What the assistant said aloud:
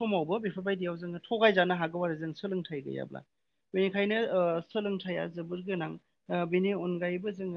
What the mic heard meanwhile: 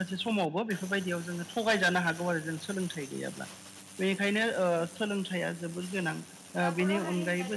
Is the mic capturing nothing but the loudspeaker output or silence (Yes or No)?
No